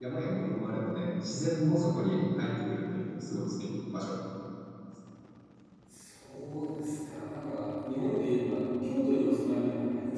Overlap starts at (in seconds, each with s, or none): none